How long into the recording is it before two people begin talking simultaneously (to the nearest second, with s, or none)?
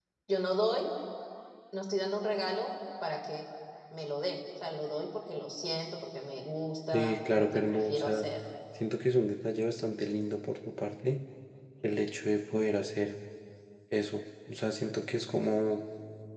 7 s